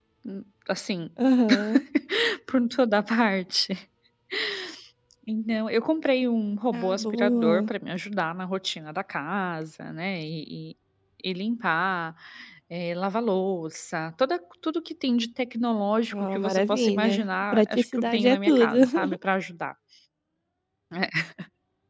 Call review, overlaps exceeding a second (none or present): present